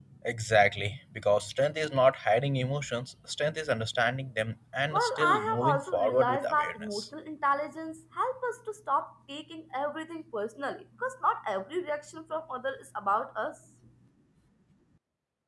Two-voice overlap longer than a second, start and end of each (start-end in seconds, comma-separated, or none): 4.9-7.1